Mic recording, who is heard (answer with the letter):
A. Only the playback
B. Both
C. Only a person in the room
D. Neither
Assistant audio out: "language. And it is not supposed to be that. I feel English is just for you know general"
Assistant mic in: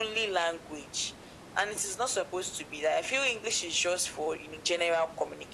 A